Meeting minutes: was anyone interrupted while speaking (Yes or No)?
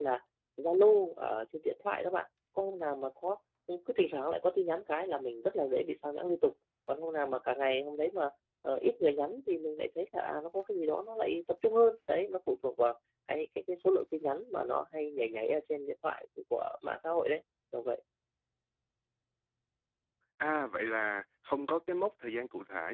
No